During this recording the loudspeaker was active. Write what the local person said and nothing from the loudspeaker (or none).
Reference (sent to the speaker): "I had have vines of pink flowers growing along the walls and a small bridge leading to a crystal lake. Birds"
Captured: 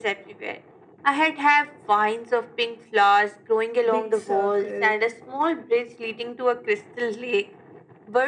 big circle,